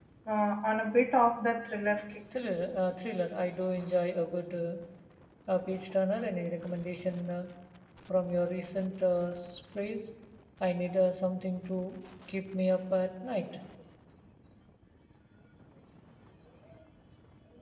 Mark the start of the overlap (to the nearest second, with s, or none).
none